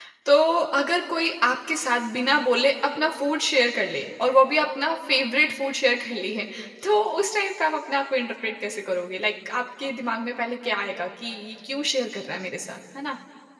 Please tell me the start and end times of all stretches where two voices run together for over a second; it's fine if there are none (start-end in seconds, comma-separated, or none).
none